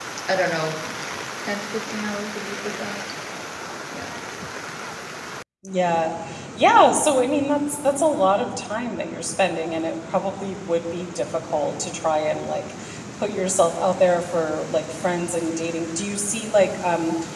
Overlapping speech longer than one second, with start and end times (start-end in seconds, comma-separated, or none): none